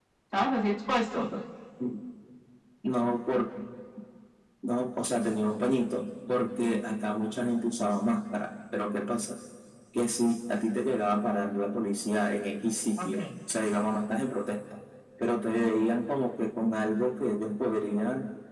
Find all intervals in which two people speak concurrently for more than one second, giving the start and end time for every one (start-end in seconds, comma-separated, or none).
none